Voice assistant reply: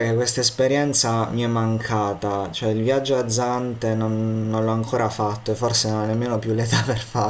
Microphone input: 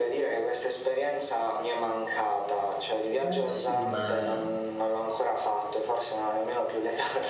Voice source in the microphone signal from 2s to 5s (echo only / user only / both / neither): both